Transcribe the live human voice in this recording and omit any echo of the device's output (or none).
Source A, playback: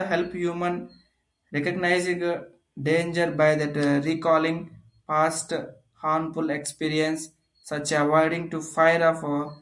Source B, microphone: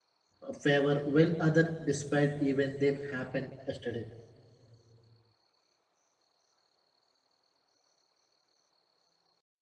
a favor while other despite even they happened yesterday.